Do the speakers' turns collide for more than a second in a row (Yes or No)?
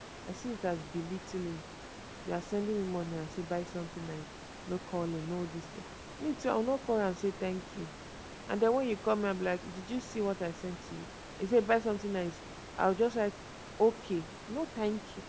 No